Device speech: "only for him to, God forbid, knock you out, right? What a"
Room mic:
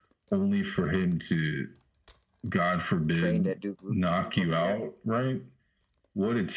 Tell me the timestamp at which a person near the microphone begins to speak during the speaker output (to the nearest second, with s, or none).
3 s